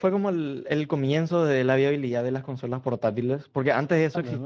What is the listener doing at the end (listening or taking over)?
listening